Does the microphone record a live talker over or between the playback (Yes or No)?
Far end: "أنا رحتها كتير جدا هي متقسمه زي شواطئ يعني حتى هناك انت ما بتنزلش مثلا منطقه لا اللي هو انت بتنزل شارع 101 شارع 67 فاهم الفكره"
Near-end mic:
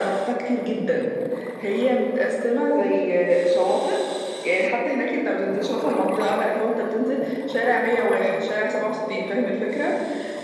No